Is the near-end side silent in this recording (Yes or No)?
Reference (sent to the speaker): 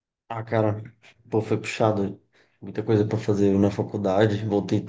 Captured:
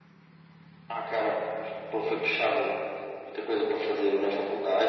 Yes